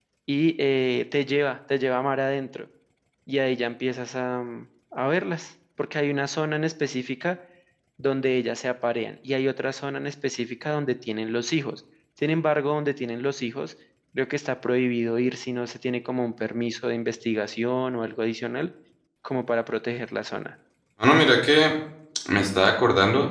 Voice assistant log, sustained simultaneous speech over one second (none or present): none